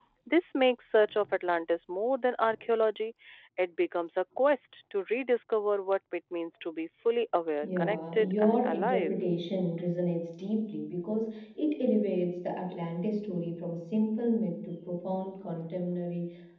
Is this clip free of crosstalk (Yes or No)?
No